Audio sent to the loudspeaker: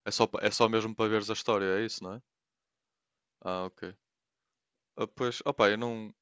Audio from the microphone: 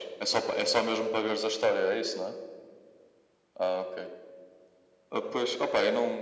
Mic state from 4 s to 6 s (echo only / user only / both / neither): echo only